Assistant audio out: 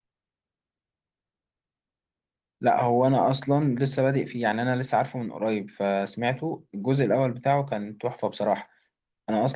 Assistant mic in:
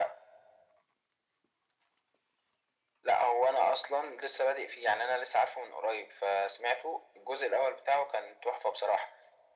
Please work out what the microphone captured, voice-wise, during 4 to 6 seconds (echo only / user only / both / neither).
echo only